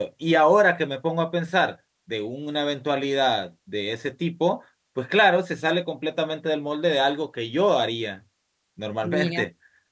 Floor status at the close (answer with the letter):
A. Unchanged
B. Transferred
A